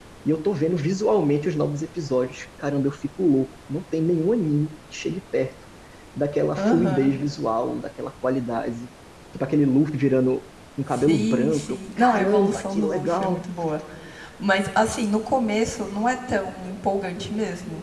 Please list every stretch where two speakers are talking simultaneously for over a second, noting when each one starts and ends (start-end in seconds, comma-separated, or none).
10.9-13.5